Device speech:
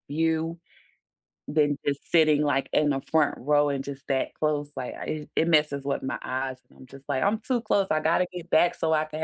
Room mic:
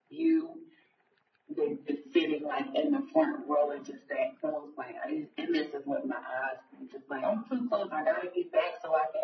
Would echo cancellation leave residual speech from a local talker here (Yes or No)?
No